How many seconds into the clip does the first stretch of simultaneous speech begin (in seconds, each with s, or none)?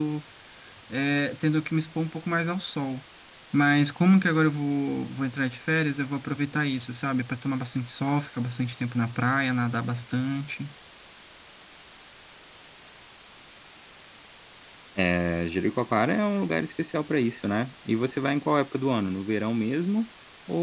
none